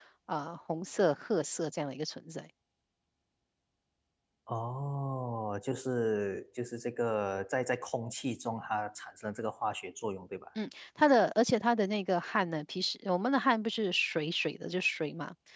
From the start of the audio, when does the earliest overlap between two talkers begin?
none

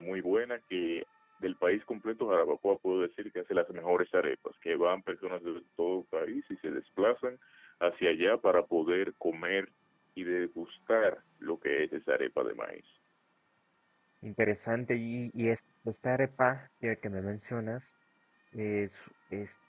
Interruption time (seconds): none

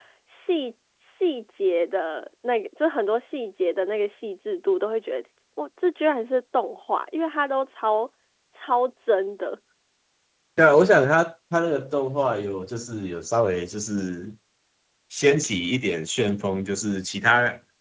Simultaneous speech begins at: none

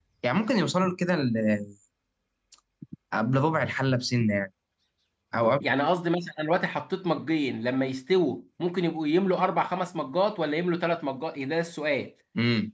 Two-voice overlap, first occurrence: none

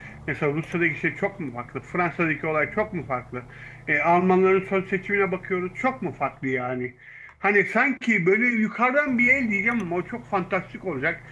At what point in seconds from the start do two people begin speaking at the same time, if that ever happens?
none

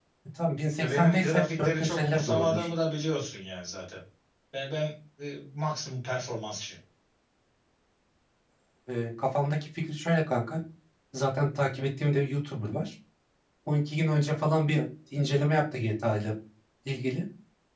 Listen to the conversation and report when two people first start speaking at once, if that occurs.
0.8 s

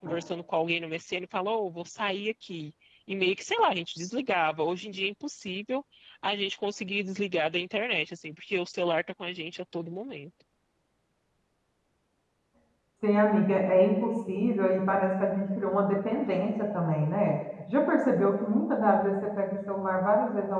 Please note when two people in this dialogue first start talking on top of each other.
none

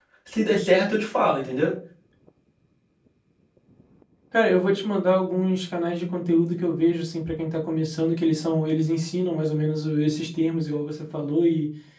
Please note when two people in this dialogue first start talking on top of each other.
none

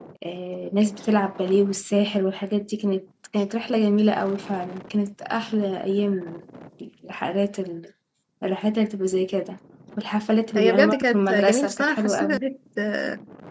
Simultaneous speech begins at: 10.6 s

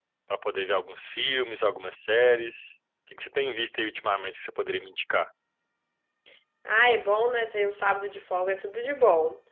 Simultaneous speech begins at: none

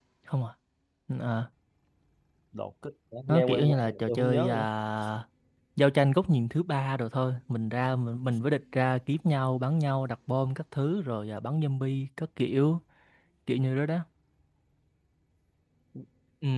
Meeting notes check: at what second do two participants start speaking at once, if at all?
3.3 s

